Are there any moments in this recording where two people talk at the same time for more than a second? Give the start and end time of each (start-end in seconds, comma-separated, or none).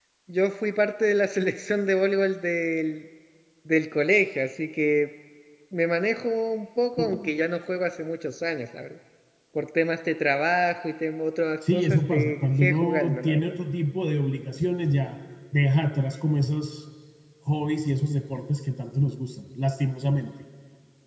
11.7-13.5